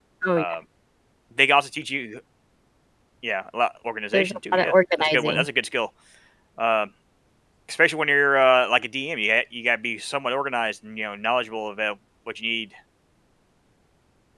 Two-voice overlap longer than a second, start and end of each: 4.1-5.5

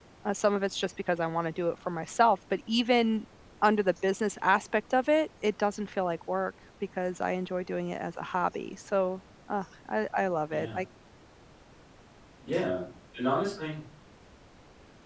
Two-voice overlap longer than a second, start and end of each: none

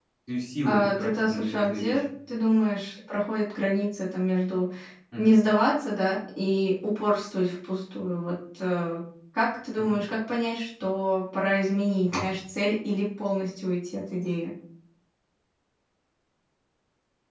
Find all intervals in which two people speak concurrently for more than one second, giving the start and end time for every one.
0.6-2.0

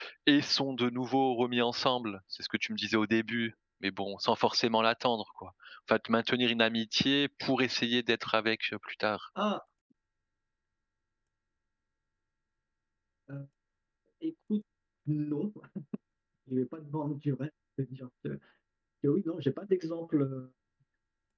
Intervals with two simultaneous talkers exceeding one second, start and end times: none

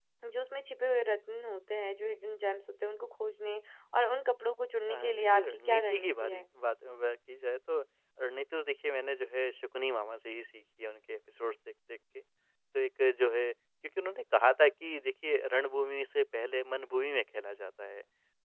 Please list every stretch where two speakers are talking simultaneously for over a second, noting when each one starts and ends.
4.9-6.4

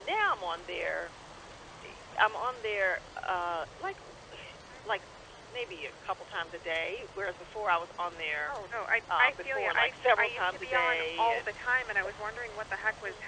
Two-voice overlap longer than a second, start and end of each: 9.2-11.5

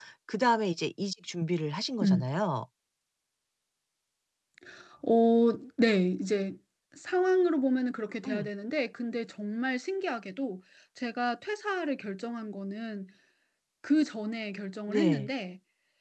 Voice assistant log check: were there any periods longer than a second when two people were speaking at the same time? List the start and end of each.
none

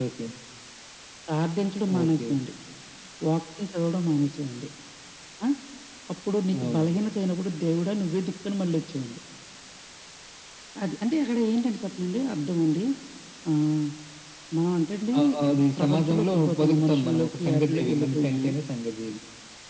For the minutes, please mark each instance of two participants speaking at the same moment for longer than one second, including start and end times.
15.8-18.4

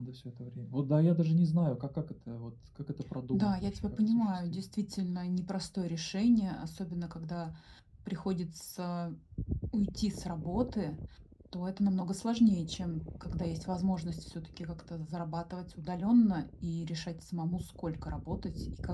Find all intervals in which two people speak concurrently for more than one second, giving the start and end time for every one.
3.3-4.6

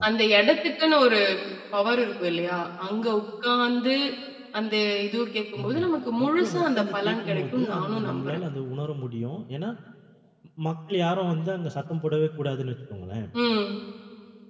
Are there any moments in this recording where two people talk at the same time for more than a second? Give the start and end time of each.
6.2-8.4

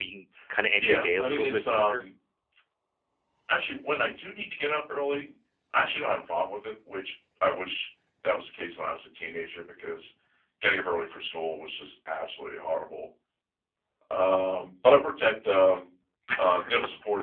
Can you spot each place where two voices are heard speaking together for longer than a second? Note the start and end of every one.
0.8-2.0

